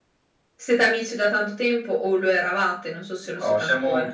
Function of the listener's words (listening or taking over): taking over